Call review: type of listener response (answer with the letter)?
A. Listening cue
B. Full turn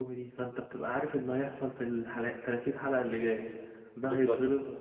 A